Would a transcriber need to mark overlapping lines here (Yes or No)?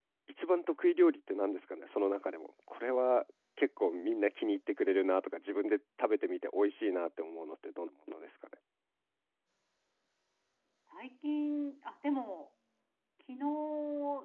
No